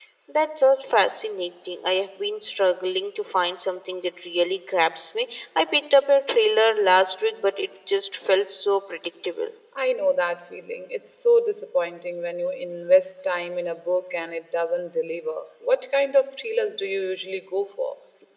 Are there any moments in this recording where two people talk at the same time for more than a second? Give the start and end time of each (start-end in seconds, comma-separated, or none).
none